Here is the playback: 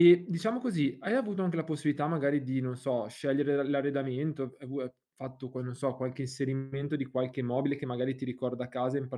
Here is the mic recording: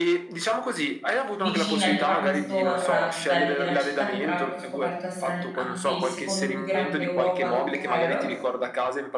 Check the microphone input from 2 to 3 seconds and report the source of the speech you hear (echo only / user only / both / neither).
both